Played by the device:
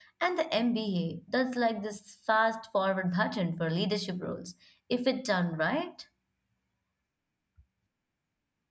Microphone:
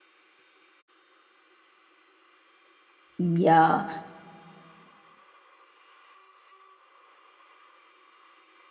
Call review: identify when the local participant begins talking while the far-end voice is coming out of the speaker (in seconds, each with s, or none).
3.2 s